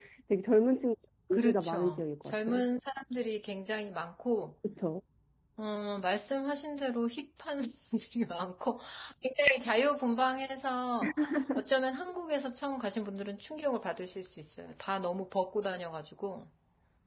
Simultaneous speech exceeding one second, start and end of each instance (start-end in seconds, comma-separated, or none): 1.3-2.6